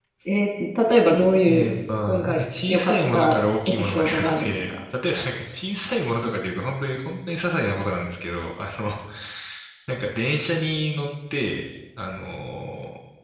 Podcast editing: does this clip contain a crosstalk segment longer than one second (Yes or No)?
Yes